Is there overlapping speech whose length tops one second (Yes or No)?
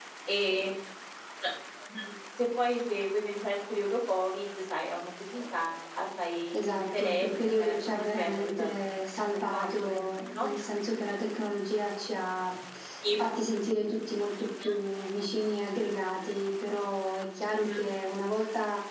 Yes